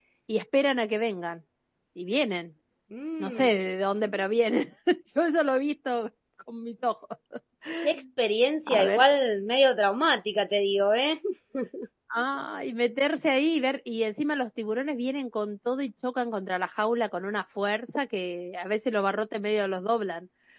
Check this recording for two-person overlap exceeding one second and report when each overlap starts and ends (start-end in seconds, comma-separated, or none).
none